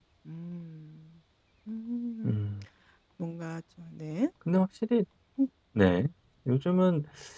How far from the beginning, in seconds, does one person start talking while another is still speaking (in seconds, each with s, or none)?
none